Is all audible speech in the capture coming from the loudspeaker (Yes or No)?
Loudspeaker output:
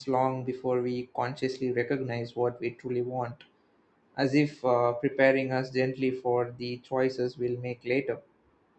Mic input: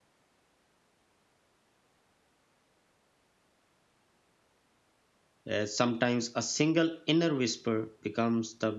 No